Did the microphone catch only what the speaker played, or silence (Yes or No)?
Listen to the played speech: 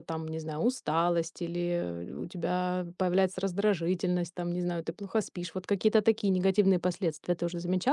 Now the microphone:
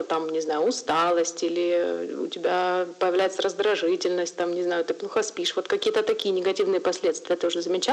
Yes